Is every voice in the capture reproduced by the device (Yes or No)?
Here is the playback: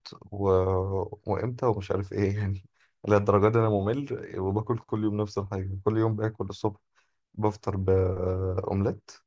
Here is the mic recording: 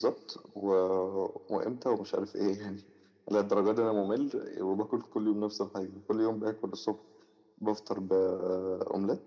Yes